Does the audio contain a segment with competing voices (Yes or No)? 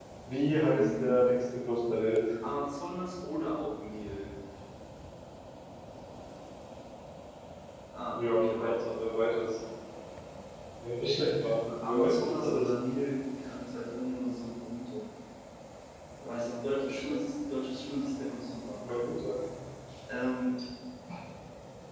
Yes